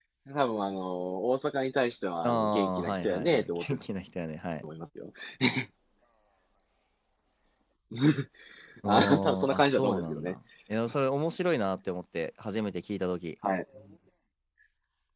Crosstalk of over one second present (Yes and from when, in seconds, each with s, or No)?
Yes, from 2.2 s